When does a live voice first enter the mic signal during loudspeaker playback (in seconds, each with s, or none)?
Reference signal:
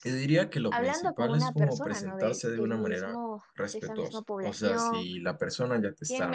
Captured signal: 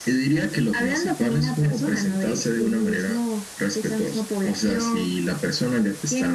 none